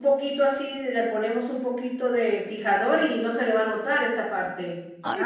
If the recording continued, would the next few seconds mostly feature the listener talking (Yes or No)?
Yes